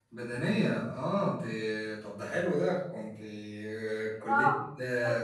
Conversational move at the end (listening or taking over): taking over